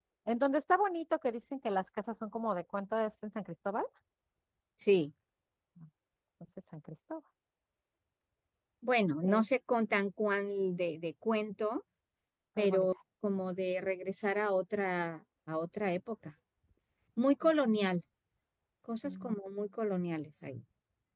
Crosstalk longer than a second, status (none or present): none